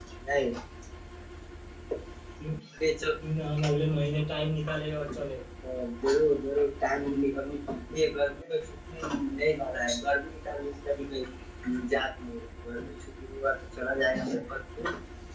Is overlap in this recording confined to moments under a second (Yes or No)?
Yes